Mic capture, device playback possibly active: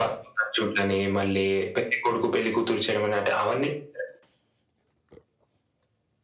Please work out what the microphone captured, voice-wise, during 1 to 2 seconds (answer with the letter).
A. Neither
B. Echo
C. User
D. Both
B